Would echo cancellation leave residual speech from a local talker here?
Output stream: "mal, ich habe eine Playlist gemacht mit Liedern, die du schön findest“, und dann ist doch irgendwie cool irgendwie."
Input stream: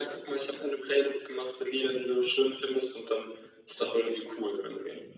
No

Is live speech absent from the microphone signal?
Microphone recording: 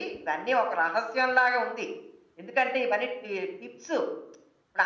Yes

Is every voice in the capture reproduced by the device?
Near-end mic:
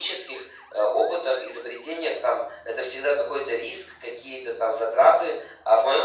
Yes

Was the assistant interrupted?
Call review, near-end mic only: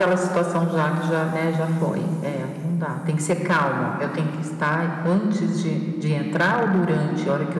No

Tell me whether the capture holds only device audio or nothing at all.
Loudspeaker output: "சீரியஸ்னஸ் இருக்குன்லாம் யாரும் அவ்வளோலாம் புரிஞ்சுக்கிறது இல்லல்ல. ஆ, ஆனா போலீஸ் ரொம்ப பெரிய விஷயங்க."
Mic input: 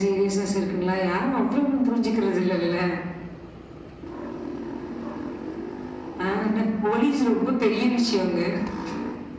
Yes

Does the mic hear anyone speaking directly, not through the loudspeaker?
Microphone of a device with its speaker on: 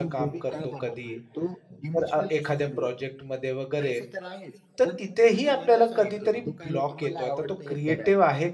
Yes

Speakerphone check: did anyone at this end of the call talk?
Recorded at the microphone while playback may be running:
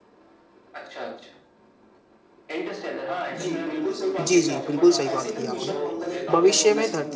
Yes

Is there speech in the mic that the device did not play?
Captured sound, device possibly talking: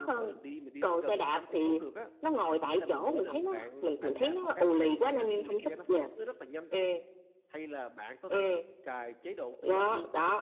Yes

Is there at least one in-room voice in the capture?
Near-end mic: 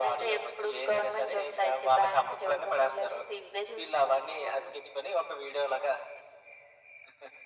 No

